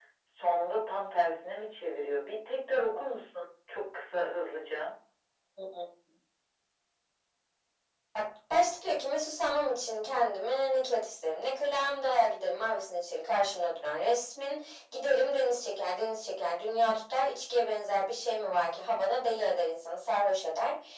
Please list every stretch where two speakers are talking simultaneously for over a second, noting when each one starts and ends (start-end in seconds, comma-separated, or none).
none